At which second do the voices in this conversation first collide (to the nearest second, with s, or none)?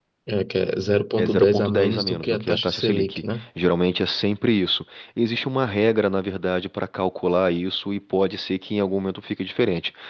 1 s